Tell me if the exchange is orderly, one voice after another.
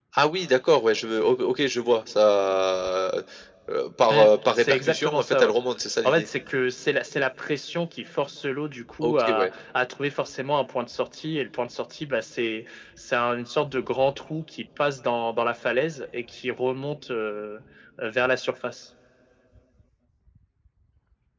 No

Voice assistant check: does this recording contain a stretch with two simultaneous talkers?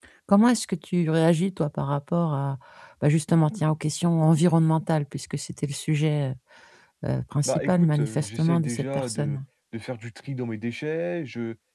Yes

